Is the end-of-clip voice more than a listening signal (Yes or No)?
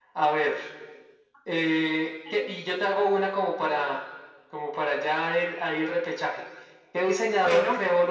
No